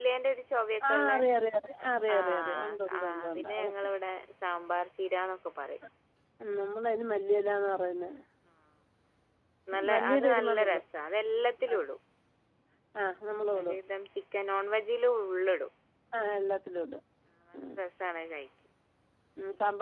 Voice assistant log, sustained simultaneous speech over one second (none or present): present